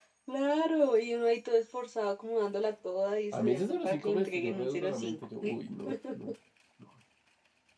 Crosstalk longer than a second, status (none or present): present